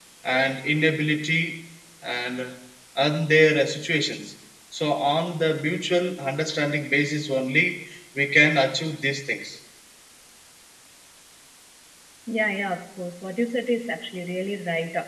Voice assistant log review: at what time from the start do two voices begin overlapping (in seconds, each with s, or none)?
none